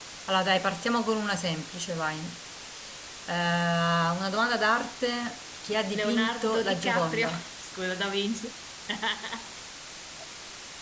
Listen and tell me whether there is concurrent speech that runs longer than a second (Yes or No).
Yes